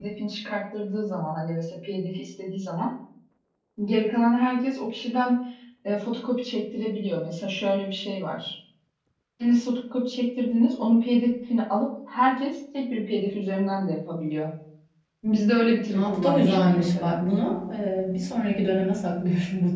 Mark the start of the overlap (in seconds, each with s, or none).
15.9 s